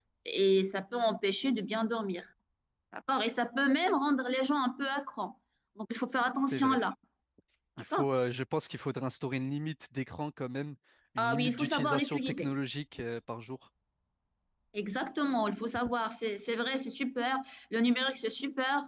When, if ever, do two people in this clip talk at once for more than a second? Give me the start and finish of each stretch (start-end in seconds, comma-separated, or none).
11.2-12.5